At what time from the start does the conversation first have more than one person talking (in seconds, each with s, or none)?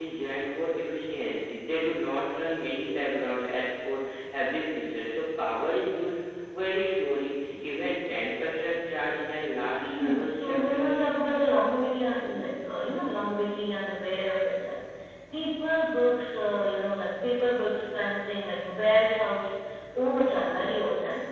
9.8 s